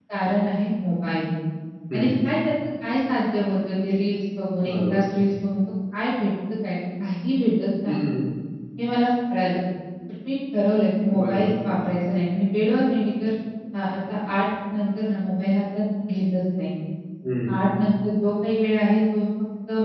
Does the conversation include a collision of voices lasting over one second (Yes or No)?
No